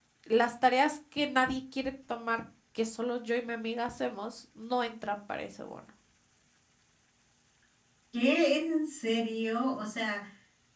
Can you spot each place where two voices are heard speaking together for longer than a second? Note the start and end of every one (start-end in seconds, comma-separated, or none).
none